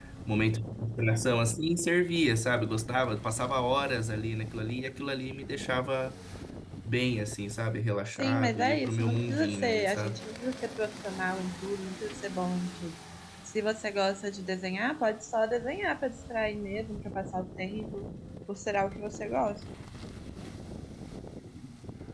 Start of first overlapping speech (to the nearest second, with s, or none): 8 s